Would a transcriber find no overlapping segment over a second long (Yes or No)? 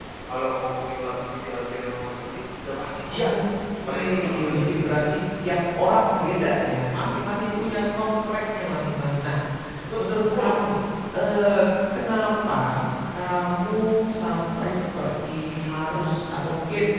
No